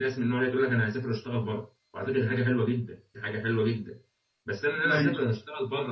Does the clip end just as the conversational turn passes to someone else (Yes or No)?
No